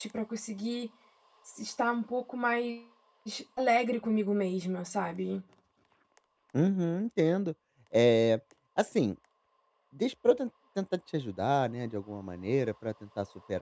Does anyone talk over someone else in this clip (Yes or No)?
No